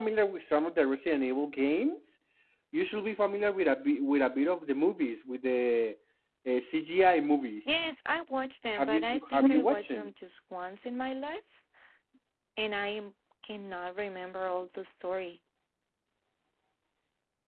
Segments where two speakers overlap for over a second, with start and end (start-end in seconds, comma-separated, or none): 8.7-10.1